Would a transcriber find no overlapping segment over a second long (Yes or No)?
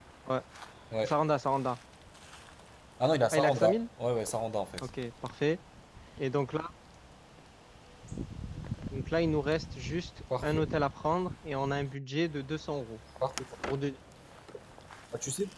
Yes